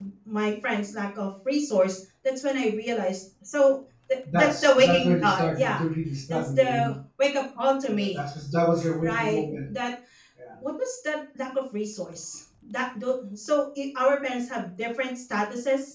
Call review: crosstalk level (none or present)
present